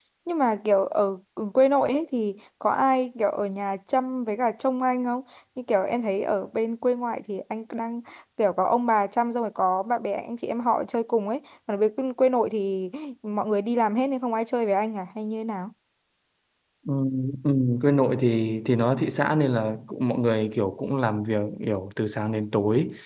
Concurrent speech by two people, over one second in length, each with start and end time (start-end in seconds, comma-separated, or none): none